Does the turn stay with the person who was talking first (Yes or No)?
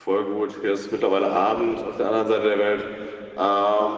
Yes